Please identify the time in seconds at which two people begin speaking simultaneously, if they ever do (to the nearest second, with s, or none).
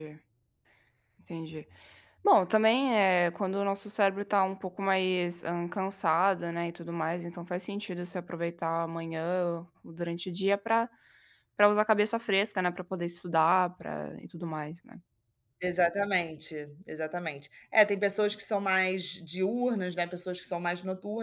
none